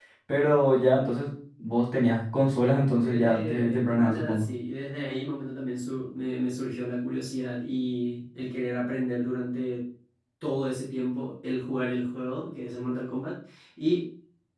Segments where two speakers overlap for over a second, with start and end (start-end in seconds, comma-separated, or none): 3.0-4.5